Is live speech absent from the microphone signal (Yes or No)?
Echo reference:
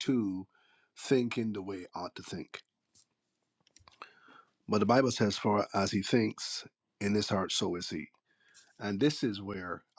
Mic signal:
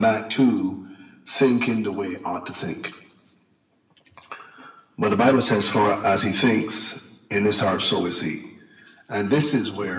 Yes